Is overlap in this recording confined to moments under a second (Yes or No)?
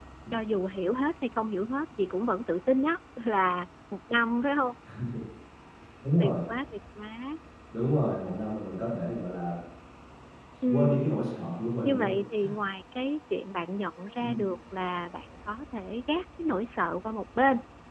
Yes